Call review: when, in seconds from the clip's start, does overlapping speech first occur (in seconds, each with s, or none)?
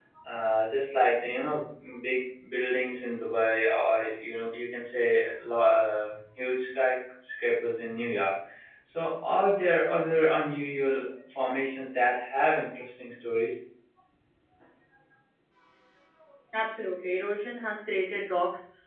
none